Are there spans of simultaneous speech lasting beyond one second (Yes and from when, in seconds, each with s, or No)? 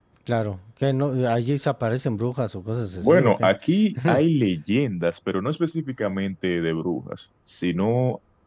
No